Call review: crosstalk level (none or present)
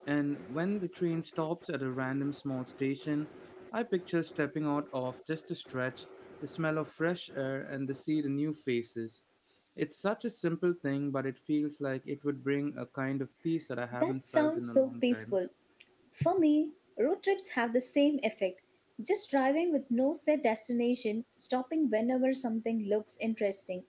present